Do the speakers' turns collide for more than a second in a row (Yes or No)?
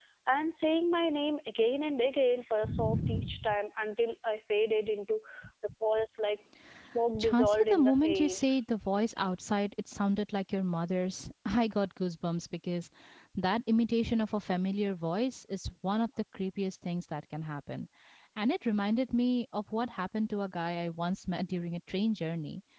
Yes